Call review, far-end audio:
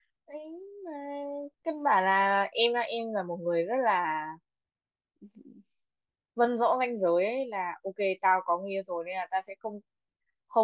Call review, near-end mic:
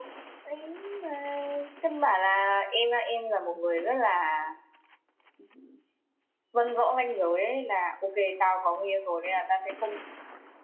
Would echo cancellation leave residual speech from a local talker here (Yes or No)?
No